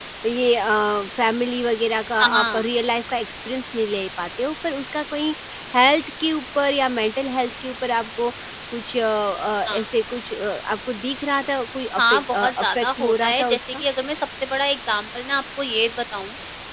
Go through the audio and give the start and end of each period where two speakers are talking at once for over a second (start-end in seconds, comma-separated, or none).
12.0-13.8